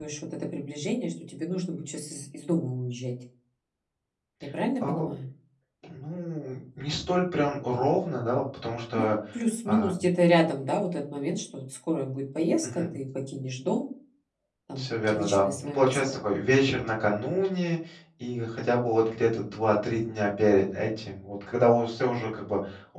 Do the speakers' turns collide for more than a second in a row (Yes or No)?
Yes